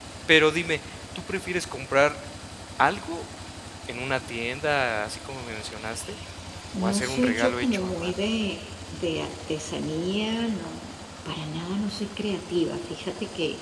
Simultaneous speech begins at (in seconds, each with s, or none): 6.8 s